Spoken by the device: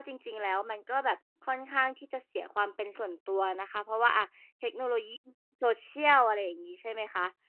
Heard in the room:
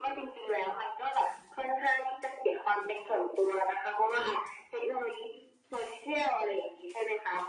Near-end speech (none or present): none